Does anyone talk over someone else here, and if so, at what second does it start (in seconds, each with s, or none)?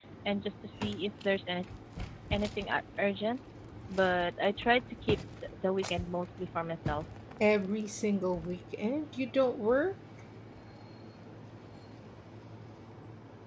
none